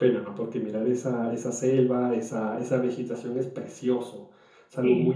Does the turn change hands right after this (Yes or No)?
No